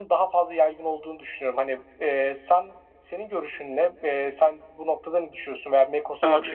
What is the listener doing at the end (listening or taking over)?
taking over